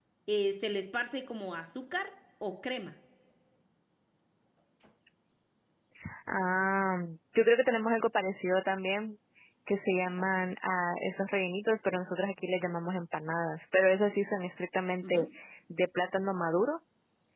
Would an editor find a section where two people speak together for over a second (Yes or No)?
No